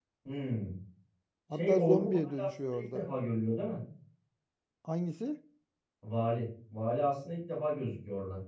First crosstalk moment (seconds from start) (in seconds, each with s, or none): 1.5 s